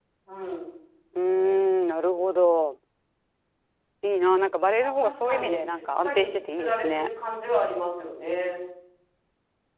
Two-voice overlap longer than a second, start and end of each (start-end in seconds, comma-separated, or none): 4.8-7.1